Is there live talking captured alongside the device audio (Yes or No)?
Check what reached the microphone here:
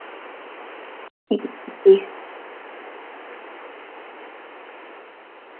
Yes